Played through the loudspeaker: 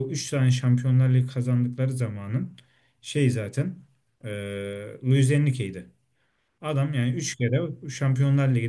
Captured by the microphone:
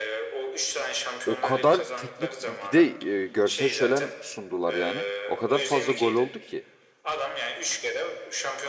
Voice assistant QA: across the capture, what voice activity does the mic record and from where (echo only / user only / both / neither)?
both